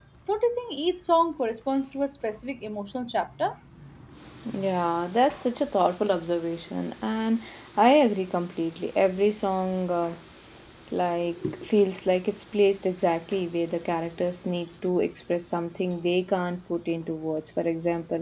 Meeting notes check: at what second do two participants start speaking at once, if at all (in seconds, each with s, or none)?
none